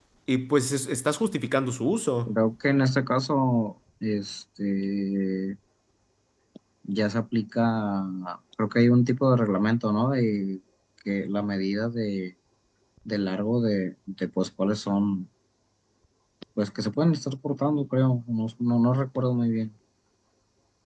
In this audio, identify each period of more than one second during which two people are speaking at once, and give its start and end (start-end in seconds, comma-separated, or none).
none